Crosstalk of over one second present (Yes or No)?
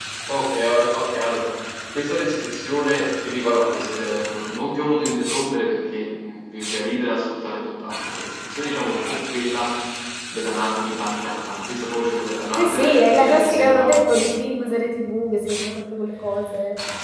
Yes